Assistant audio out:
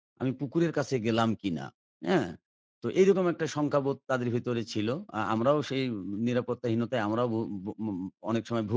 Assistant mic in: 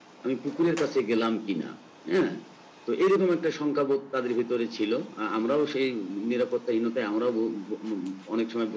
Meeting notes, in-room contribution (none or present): none